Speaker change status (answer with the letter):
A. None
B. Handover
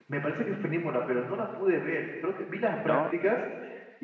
A